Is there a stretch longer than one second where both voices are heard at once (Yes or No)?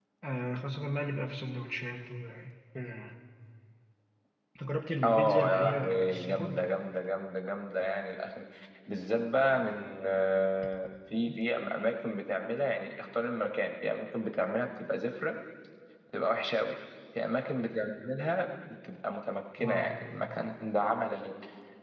Yes